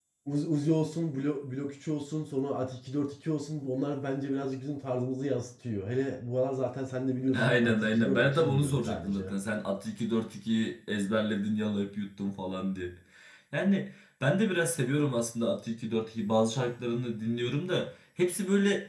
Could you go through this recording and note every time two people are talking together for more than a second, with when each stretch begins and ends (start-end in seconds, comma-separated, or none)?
7.3-9.3